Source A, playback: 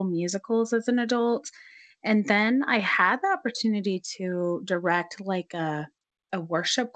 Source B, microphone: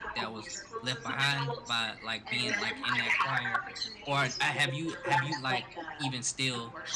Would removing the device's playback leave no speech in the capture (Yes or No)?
No